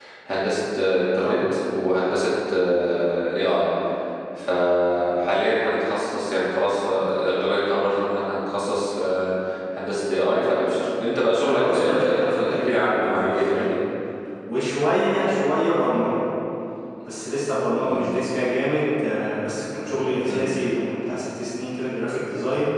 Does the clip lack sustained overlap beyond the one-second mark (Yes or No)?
No